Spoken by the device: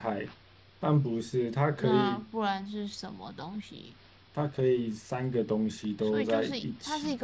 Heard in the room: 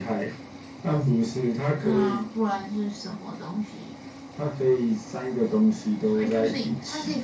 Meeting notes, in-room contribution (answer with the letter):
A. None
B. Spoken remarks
A